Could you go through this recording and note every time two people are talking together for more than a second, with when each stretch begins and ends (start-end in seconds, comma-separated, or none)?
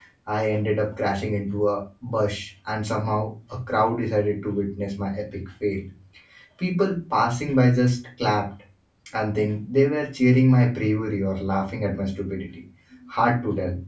none